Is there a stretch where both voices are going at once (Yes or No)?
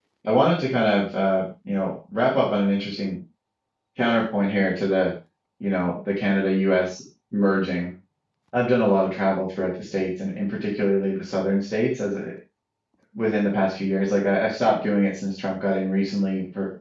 No